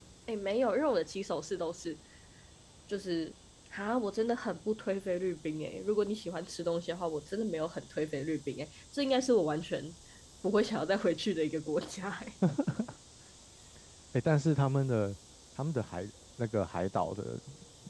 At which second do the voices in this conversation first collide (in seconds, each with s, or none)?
none